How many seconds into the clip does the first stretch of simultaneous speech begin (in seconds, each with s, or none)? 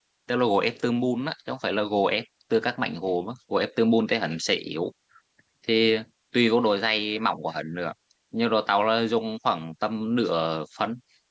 none